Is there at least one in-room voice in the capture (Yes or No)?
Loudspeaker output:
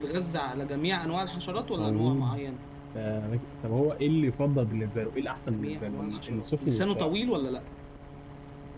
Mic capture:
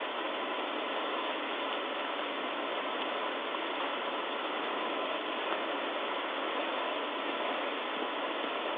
No